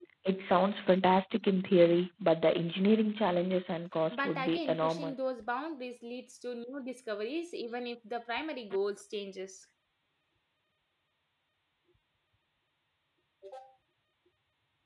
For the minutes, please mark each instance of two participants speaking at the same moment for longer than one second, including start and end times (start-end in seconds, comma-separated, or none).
4.1-5.3